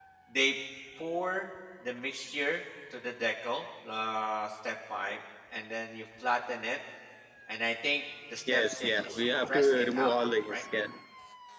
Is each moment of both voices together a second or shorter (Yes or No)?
No